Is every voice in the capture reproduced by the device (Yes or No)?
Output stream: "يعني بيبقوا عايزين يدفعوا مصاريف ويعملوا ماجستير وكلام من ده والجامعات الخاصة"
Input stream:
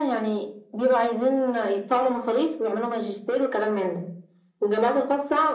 Yes